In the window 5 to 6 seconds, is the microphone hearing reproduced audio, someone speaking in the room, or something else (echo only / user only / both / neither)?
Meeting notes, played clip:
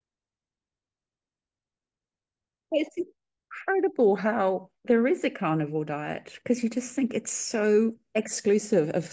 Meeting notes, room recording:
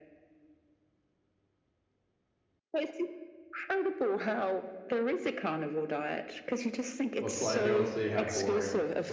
echo only